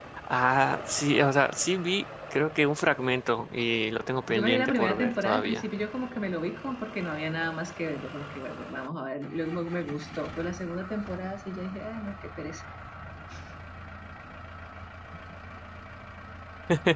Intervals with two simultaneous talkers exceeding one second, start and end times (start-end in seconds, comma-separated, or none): 4.3-5.6